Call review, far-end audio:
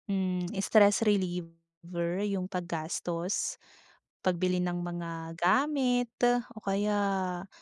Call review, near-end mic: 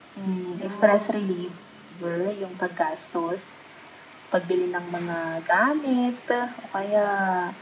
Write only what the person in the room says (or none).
'Yon.